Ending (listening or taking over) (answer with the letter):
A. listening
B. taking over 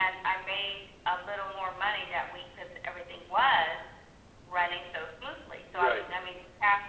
A